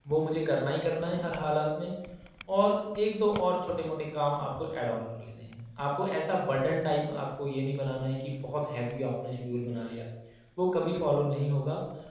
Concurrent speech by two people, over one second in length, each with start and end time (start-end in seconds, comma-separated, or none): none